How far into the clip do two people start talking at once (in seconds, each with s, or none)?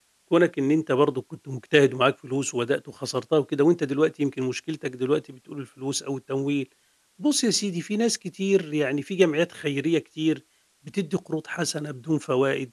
none